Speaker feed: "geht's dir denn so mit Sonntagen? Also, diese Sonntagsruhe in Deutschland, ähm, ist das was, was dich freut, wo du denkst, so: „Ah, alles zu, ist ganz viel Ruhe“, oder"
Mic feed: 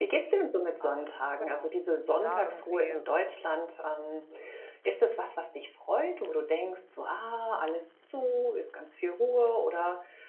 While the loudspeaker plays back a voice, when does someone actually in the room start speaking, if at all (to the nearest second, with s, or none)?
1 s